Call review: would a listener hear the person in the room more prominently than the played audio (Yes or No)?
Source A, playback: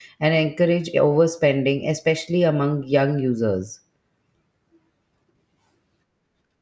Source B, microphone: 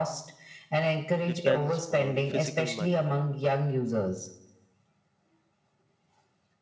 No